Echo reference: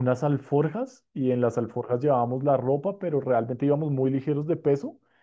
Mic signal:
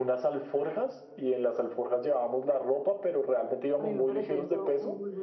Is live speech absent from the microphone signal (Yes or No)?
No